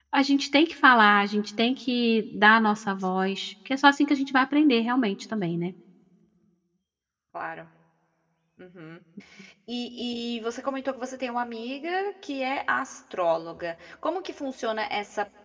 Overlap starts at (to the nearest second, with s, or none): none